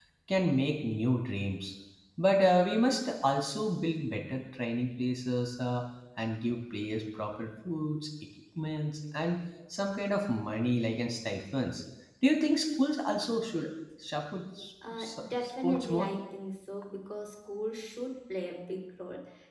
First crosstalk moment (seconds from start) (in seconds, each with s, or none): 14.8 s